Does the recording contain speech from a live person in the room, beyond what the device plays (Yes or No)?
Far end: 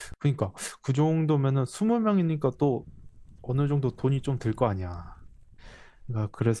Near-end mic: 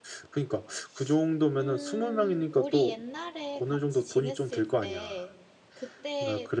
Yes